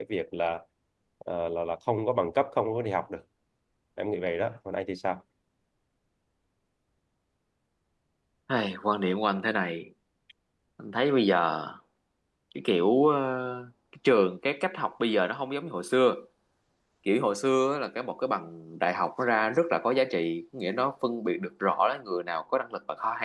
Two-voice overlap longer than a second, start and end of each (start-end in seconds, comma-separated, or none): none